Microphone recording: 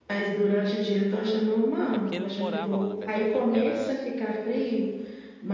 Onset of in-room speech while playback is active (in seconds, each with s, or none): 1.9 s